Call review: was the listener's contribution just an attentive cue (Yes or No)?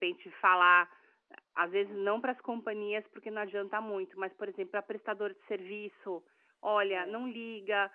Yes